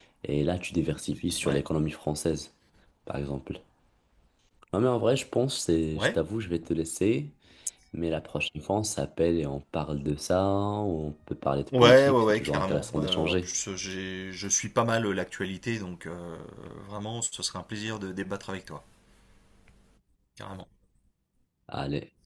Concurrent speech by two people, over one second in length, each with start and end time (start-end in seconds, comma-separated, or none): 11.8-13.5